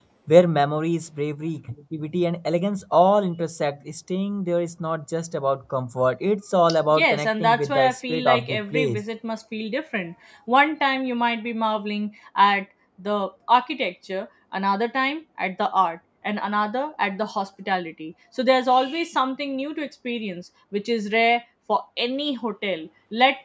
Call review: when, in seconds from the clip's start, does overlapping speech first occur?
6.9 s

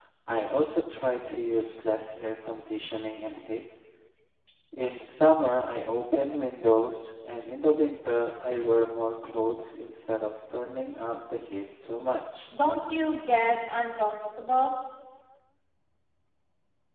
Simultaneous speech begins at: none

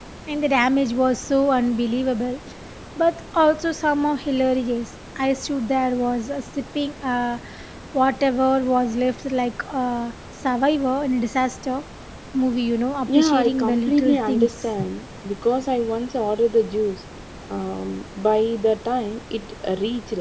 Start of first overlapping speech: 13.1 s

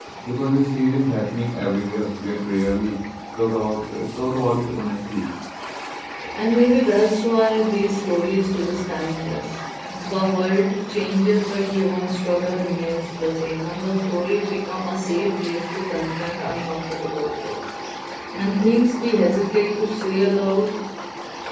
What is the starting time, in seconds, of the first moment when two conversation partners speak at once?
none

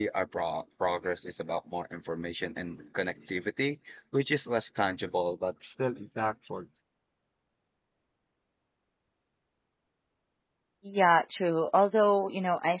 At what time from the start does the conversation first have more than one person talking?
none

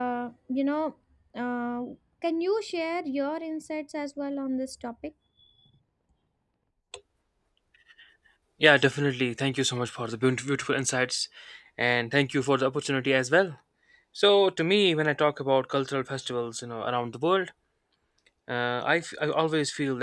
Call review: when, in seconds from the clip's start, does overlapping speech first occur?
none

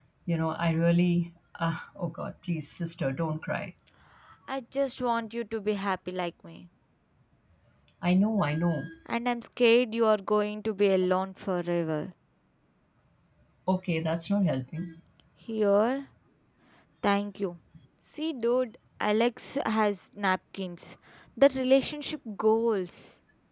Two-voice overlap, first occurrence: none

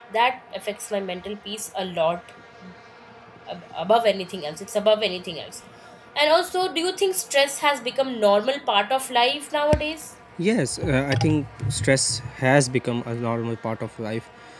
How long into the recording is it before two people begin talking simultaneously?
none

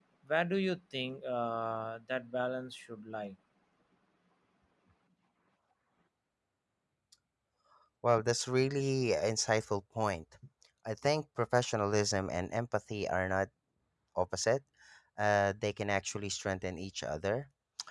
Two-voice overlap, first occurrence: none

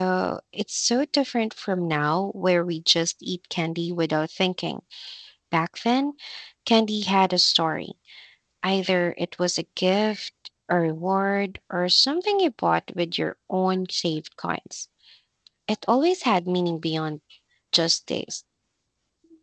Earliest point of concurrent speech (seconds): none

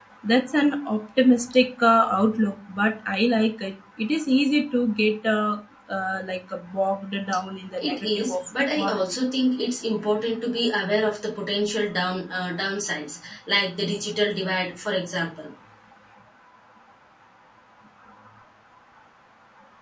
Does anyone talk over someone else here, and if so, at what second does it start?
7.8 s

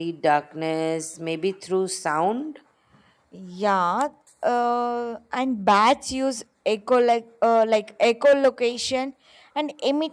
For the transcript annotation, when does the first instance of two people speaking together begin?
none

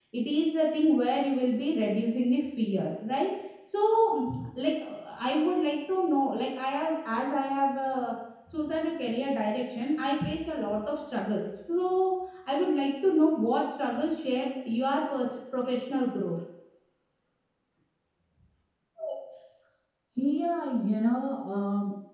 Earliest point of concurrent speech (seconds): none

